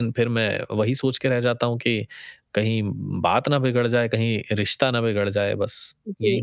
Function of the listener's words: taking over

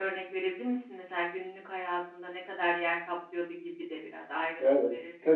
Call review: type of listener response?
taking over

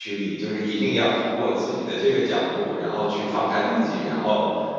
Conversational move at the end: listening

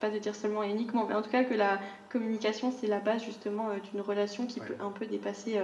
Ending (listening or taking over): listening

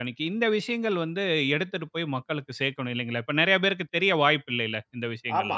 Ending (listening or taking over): taking over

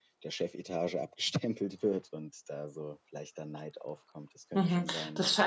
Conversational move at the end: taking over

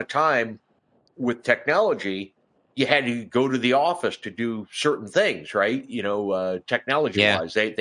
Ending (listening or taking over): listening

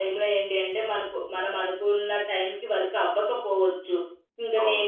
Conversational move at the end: listening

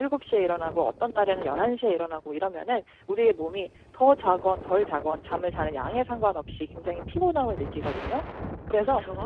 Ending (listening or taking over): listening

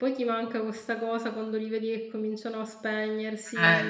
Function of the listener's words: taking over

